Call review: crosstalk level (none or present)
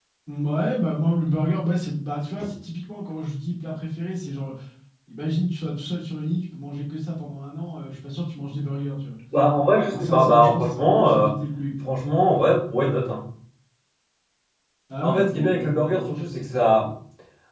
present